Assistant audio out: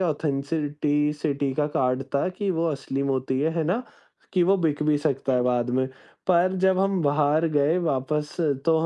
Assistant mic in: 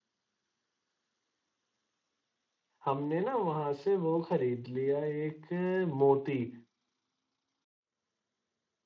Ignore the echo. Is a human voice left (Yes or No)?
Yes